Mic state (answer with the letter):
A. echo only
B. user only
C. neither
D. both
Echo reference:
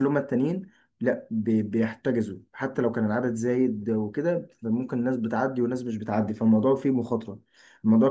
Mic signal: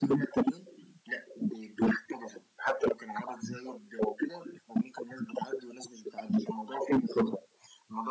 A